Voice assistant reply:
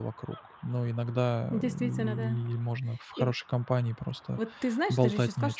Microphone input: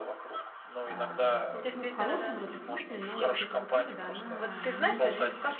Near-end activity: present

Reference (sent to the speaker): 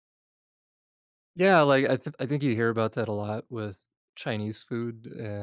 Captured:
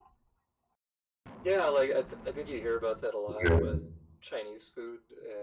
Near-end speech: present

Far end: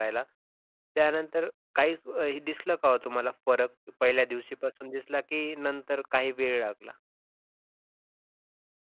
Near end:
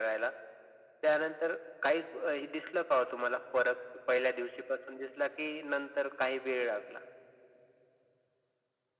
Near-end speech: none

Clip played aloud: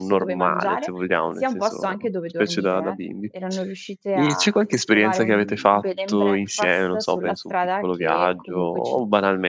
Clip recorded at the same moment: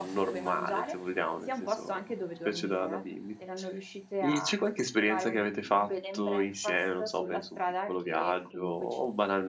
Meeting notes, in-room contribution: none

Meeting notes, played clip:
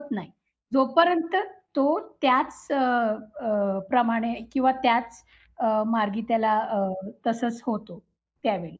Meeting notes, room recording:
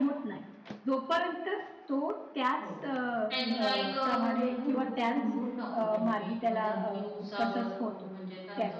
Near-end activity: present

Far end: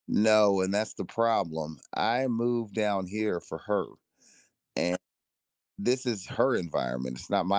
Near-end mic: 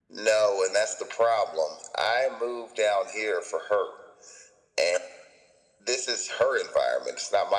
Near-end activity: none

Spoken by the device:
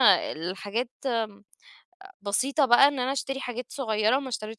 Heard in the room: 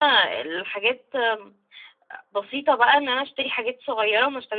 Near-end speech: none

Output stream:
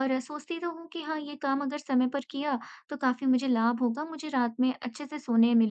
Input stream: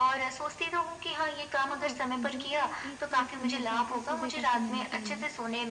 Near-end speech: present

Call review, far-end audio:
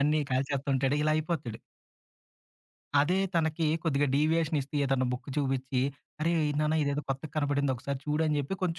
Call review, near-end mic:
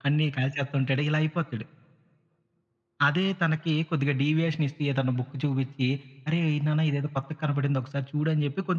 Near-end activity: none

